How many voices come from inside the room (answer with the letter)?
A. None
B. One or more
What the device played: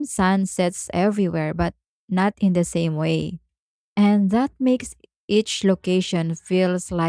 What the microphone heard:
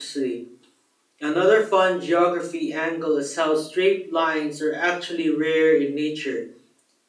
B